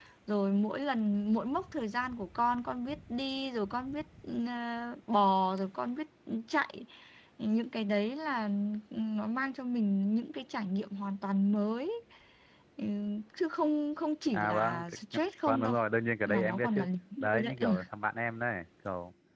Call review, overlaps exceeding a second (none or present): present